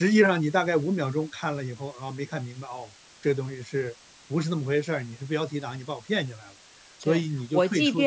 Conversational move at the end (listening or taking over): taking over